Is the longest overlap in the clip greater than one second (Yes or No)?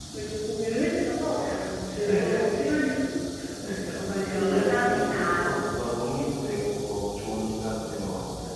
Yes